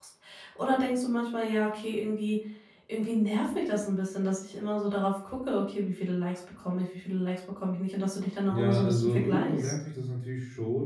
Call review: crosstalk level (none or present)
present